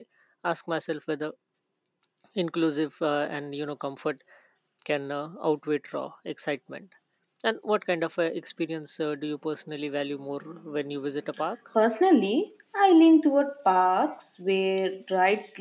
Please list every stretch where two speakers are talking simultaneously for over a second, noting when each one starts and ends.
none

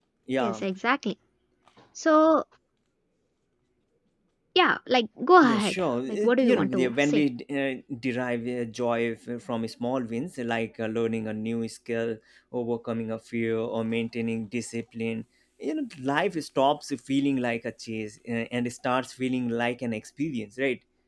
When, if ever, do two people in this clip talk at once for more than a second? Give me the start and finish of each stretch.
5.5-7.2

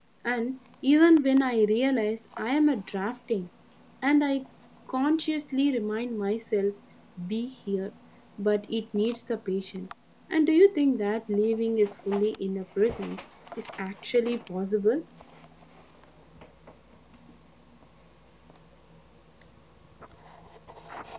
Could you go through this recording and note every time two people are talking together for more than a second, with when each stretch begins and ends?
none

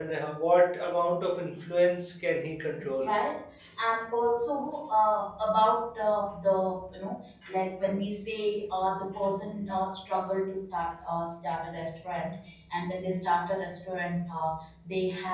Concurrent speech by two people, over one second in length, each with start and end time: none

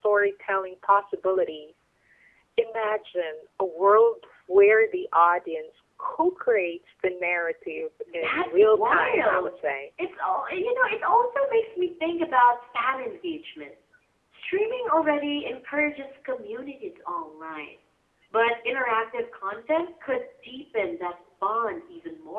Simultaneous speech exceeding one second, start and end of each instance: 8.1-9.5

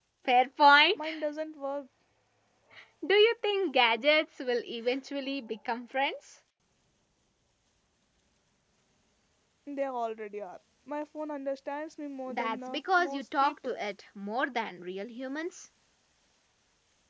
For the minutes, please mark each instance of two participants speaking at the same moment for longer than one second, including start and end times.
12.3-13.8

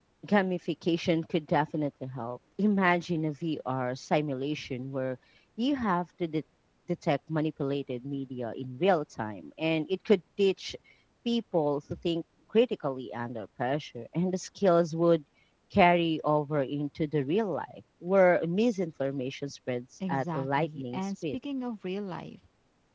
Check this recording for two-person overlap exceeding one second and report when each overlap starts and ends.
20.1-21.4

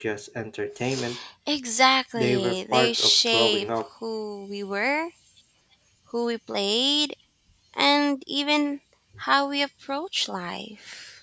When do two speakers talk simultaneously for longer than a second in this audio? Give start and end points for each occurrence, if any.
2.2-3.7

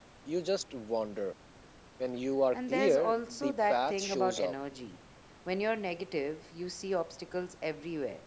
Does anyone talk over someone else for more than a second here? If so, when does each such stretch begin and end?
2.5-4.5

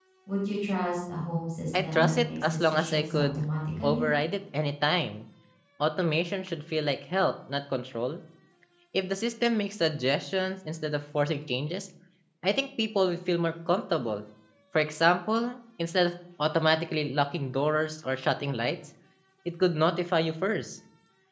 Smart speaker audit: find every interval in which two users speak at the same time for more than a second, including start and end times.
1.8-3.4

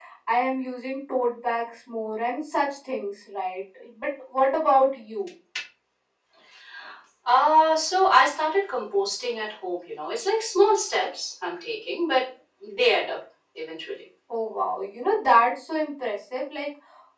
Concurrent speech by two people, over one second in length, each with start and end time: none

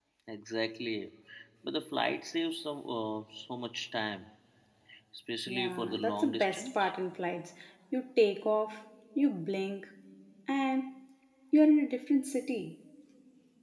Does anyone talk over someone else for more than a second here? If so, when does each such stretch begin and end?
5.5-6.9

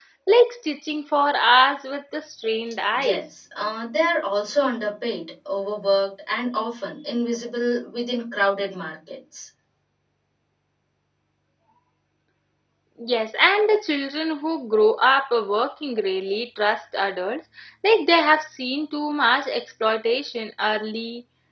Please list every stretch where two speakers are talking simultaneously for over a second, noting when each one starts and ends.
none

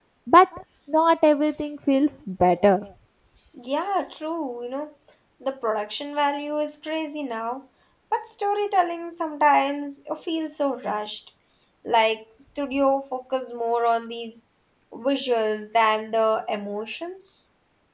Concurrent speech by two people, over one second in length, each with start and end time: none

